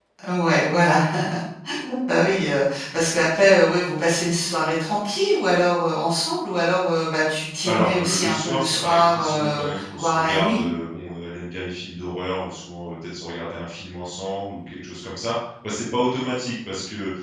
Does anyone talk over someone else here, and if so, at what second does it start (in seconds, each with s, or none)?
7.6 s